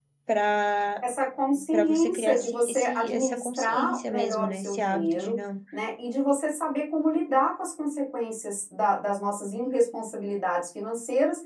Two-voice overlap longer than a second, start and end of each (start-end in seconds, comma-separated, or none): 1.7-5.4